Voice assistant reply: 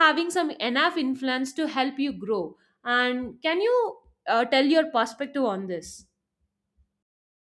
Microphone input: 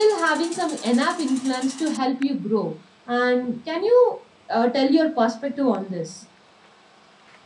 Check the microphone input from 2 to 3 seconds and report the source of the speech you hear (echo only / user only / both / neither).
echo only